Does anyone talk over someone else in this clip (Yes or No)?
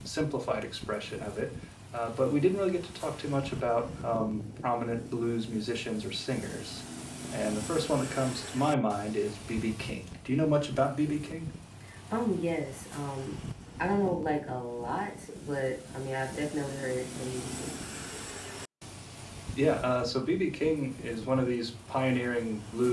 No